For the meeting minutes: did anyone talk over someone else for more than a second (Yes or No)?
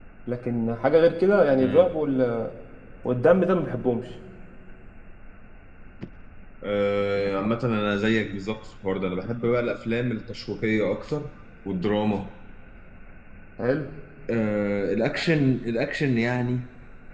No